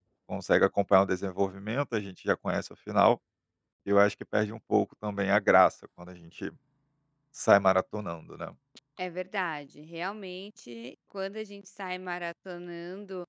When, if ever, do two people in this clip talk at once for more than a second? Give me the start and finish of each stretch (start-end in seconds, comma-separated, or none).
none